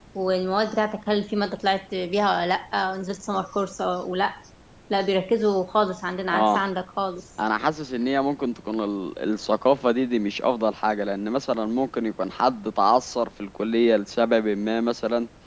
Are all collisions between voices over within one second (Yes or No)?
Yes